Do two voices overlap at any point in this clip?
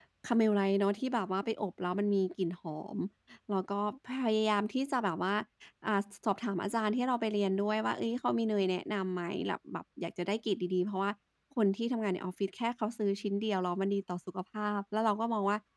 No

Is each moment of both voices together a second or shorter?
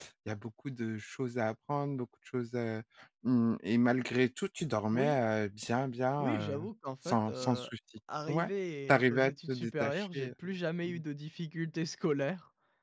No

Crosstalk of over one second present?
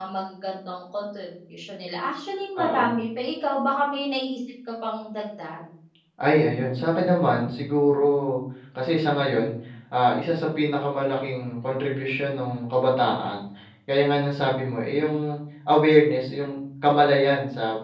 No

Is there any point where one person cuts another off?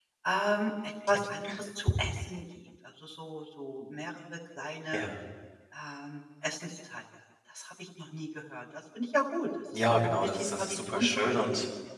Yes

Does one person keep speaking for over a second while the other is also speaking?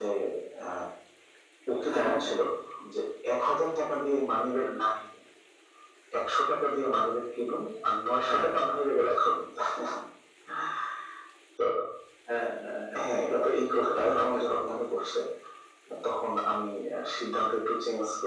Yes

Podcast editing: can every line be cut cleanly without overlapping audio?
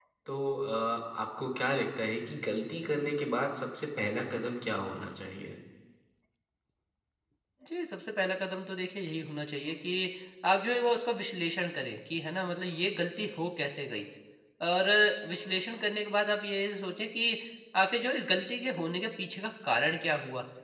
Yes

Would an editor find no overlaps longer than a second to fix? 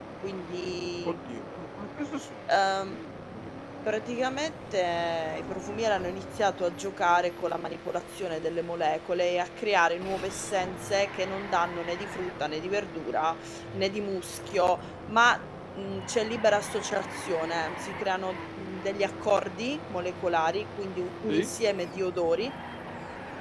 Yes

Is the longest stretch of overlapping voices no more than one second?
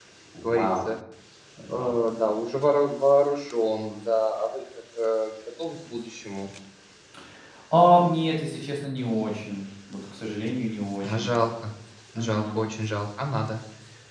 Yes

